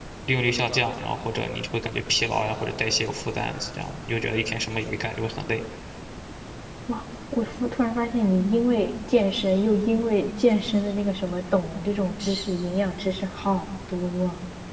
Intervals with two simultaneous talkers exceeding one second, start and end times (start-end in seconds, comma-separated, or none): none